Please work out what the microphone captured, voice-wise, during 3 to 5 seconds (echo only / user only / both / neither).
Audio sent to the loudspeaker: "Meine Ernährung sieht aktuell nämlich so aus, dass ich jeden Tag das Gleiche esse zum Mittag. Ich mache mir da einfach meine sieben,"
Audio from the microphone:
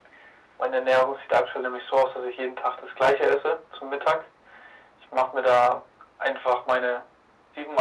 echo only